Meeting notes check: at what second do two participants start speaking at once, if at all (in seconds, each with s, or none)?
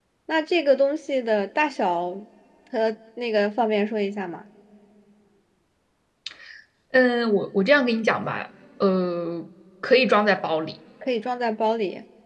none